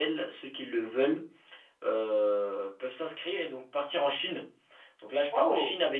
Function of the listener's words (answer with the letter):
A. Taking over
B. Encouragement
B